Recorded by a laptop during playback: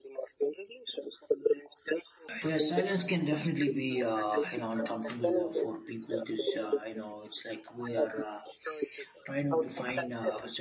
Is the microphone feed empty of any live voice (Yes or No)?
No